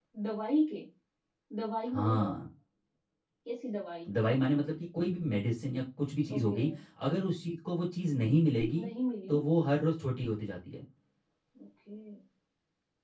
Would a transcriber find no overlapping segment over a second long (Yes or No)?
Yes